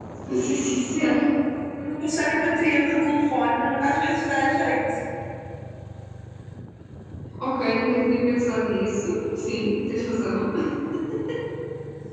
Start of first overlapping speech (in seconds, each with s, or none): none